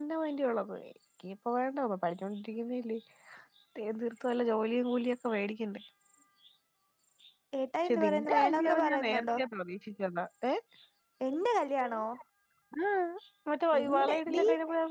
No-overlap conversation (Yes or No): No